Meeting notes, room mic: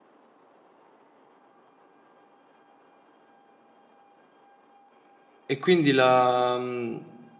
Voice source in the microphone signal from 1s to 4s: neither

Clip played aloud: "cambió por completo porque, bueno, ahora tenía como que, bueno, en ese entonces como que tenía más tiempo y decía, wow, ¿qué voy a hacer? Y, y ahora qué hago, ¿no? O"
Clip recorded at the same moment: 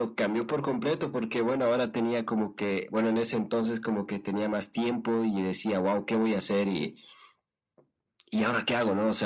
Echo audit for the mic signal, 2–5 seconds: echo only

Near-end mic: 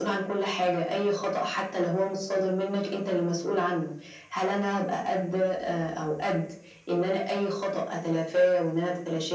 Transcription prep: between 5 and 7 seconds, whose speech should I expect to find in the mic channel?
echo only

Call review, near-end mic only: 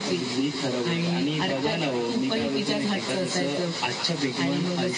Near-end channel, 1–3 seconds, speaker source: echo only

